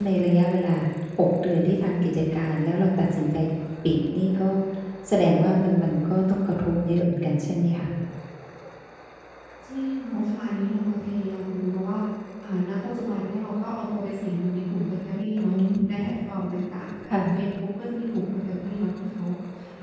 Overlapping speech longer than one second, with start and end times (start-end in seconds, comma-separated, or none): none